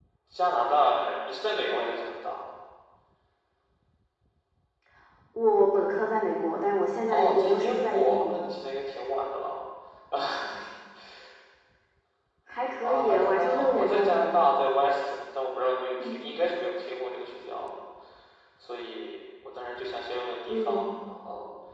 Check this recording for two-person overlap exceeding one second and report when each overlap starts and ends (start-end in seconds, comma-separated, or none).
7.1-8.4, 12.8-14.1